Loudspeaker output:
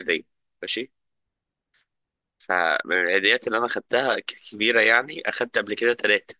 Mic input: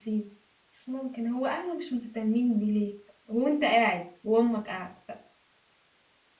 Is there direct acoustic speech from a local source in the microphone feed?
Yes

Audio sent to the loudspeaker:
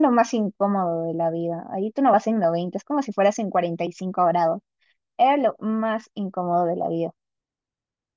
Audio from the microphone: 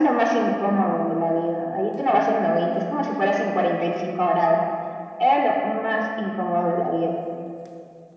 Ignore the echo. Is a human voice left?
No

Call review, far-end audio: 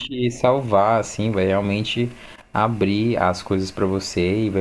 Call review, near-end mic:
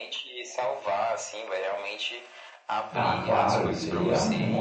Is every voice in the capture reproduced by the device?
No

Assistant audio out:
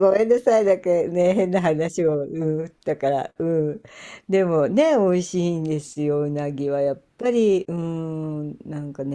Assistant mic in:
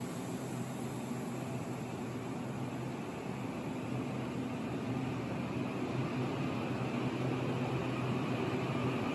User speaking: No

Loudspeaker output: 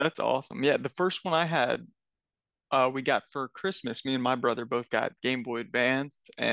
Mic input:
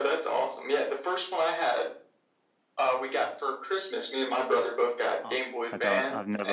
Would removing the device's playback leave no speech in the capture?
No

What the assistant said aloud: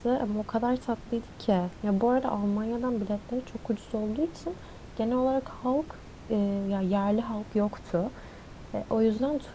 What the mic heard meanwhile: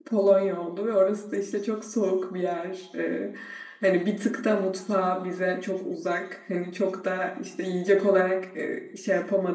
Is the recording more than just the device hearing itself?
Yes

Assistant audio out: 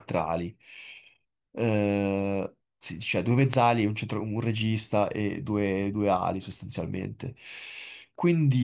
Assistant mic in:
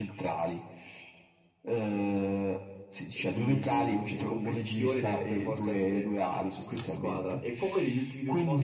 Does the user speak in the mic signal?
Yes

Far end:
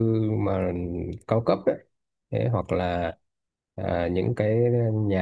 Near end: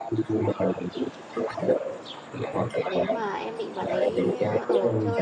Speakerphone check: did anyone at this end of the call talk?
Yes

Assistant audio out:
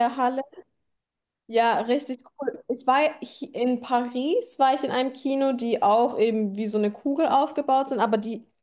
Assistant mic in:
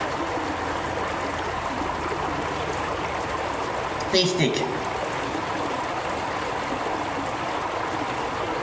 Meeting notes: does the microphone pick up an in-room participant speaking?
Yes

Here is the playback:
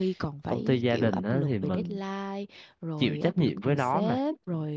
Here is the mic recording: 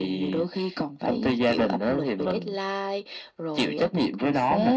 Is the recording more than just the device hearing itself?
No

